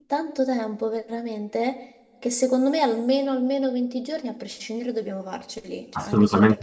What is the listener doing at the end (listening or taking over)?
taking over